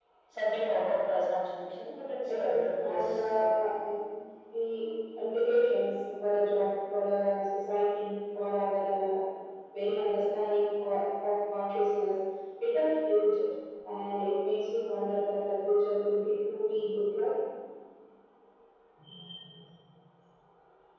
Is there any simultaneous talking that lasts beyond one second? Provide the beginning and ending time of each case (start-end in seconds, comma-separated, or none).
2.3-3.5